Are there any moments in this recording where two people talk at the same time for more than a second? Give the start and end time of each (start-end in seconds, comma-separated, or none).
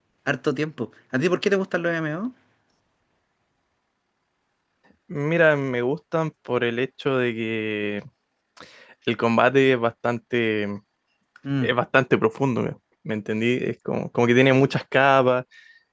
none